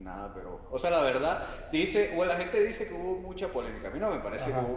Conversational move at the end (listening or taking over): taking over